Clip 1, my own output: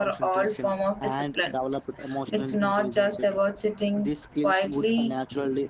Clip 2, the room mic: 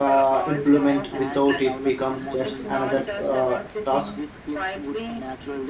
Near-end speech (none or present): present